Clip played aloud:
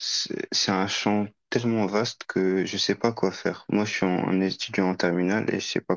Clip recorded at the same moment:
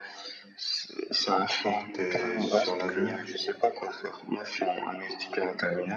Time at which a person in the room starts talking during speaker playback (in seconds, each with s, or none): 1.6 s